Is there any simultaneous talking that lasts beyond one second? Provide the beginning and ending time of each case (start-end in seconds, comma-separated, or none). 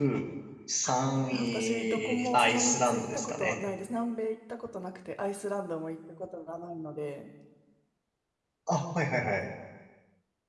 1.3-3.6